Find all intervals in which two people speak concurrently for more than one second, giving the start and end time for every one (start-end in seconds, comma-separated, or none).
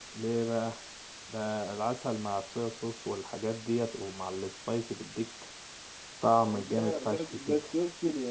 6.4-7.6